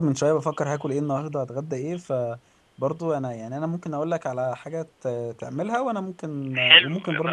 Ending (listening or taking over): taking over